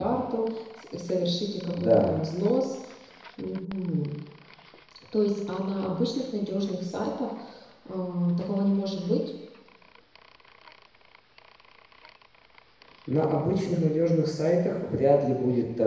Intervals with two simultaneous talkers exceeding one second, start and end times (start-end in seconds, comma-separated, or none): none